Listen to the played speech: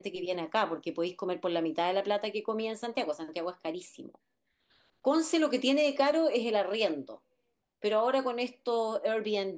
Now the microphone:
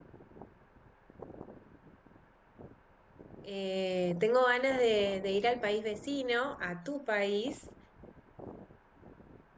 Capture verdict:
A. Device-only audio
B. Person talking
B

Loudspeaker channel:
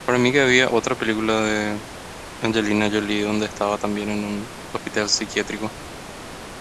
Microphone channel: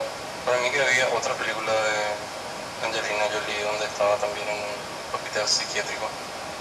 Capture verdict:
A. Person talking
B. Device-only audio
B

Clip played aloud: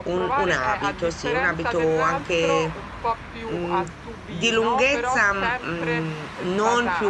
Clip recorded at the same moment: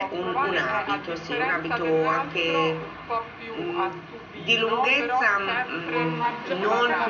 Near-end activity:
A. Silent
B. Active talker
B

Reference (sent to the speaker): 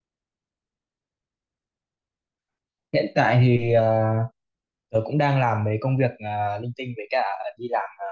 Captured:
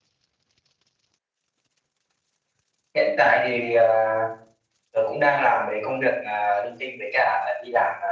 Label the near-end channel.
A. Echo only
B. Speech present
A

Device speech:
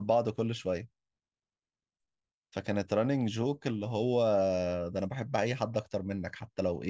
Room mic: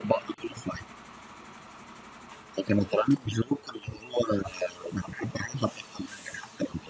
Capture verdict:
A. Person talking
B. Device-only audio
B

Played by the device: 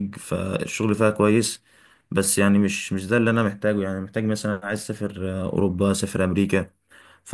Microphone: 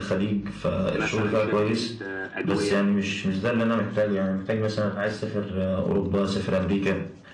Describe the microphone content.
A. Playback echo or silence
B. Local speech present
B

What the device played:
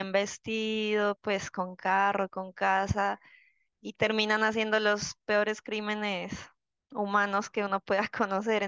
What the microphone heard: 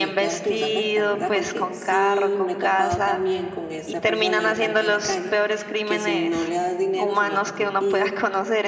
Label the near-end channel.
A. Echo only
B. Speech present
B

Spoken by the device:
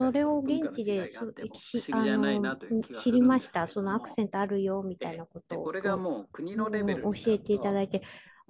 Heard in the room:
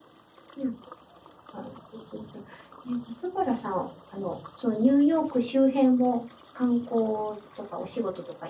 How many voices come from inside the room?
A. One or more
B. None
A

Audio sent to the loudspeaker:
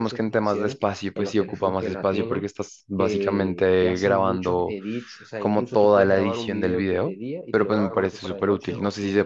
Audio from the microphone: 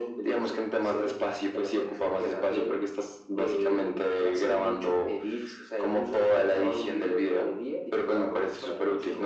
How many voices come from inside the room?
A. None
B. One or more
A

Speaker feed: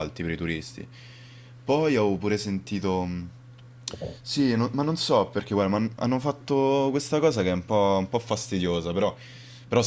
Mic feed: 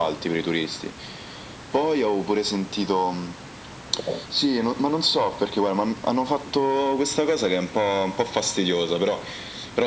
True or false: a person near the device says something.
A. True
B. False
B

